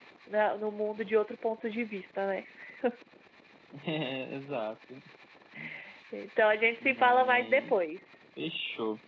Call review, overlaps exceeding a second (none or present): present